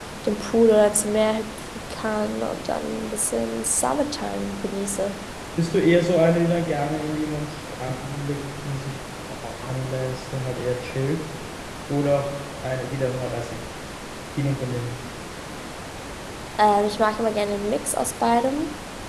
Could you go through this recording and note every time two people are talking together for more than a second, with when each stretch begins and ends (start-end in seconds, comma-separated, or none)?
none